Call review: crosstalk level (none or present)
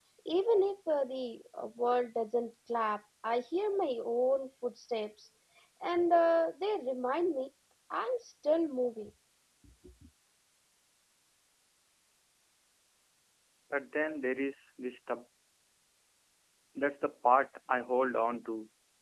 none